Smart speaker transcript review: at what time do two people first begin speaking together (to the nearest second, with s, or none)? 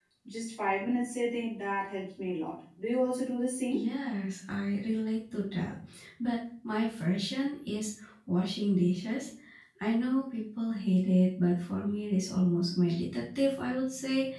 none